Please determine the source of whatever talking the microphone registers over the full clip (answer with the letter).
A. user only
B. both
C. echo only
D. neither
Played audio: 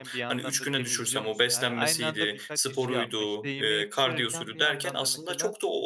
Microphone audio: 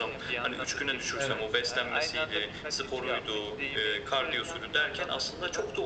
B